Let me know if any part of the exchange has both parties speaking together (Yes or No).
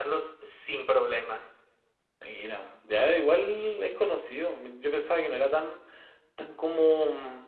No